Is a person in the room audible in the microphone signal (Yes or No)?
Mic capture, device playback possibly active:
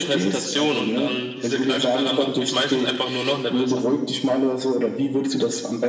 No